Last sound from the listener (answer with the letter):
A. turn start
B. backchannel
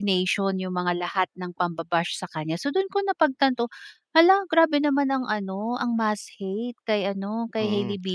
A